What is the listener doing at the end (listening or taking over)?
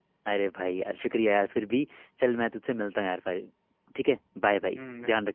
taking over